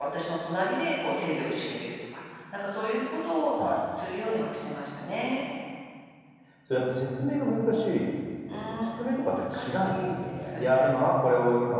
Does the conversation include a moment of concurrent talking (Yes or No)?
Yes